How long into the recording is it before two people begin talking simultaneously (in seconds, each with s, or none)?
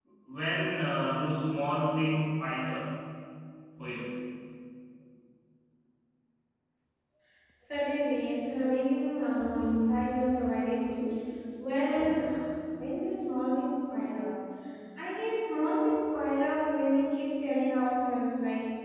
none